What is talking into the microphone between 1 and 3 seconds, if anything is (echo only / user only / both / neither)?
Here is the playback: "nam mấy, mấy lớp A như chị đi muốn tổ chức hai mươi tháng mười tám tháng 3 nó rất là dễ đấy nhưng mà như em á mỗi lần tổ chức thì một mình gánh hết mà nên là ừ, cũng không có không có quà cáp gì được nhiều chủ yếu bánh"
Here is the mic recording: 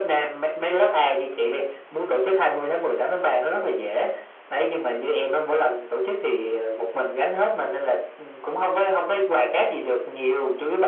echo only